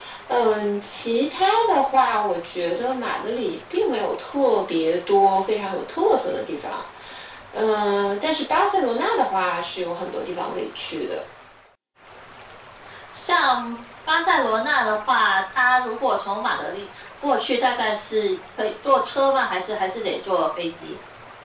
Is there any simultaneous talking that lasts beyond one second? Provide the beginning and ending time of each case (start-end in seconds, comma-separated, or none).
none